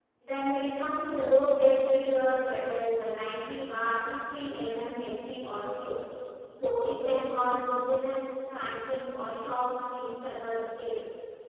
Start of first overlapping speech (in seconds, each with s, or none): none